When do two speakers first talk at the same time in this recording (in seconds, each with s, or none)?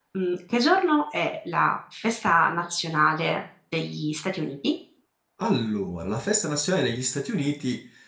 none